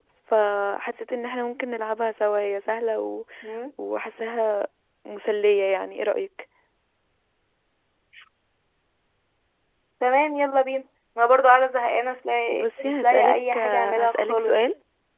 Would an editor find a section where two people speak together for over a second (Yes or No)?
Yes